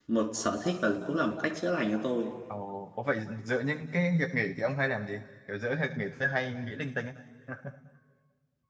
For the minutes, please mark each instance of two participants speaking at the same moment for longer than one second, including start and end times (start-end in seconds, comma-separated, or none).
none